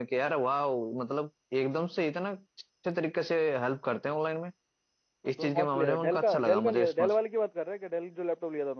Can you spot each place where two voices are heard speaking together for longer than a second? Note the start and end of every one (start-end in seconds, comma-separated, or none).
5.3-7.1